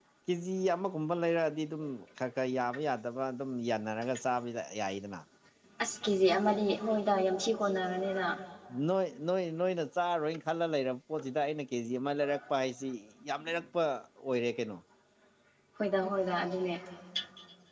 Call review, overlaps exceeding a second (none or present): none